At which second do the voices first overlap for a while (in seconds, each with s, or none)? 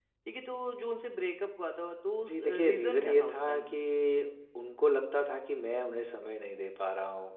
2.2 s